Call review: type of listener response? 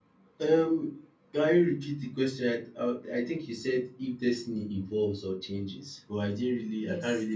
taking over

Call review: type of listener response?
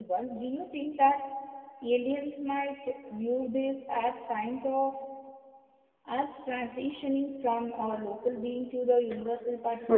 taking over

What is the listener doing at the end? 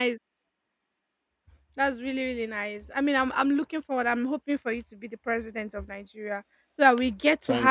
listening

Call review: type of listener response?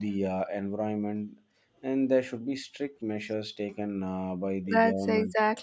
taking over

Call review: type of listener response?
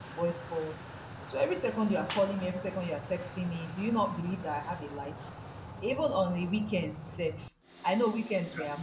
listening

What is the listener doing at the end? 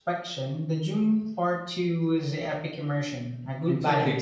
taking over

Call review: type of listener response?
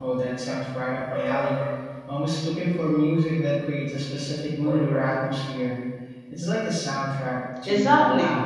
taking over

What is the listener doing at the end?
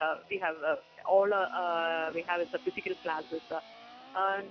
listening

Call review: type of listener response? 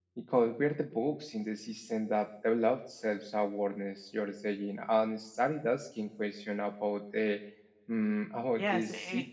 taking over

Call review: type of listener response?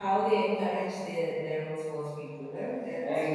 taking over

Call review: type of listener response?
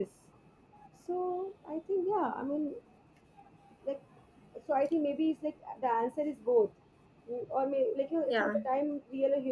listening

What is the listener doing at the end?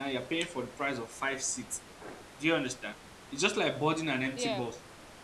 listening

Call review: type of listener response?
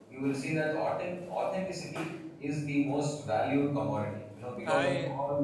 listening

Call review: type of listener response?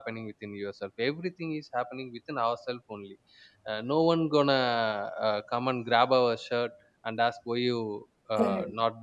listening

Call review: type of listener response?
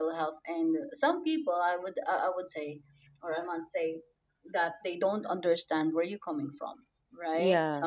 listening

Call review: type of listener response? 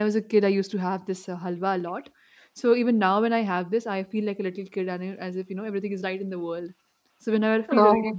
listening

